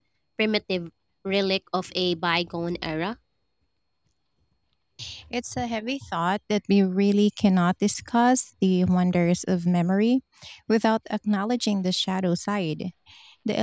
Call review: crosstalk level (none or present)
none